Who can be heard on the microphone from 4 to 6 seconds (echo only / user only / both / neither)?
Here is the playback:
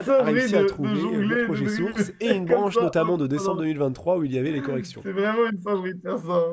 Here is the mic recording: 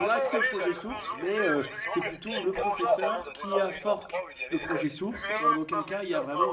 both